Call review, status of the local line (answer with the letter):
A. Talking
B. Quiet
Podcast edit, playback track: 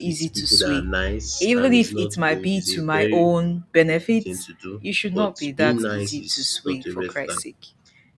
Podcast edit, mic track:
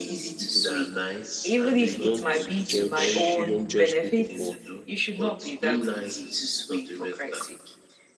A